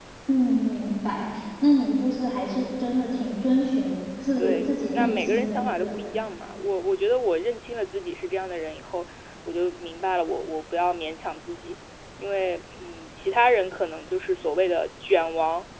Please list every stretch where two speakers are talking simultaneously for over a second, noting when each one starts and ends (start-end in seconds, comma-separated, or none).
4.4-6.1